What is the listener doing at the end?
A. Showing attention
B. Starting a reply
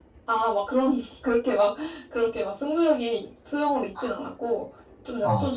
A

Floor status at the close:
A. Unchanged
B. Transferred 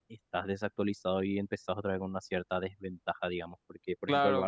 B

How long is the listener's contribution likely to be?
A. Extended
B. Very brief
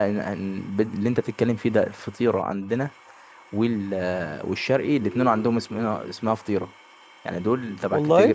B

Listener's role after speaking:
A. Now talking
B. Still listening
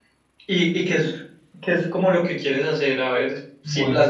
B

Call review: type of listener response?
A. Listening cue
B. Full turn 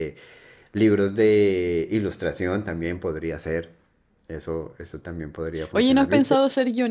B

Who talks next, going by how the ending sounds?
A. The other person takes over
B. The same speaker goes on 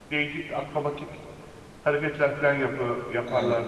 A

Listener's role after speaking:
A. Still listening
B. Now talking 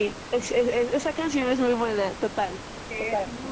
B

